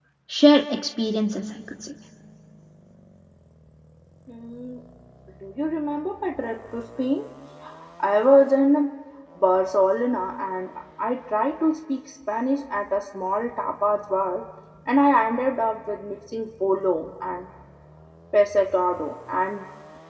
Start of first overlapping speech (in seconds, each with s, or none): none